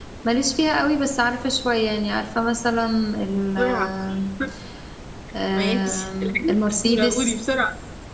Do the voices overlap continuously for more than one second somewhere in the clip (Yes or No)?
Yes